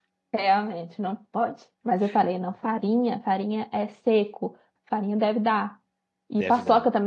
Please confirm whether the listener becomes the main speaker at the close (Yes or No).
No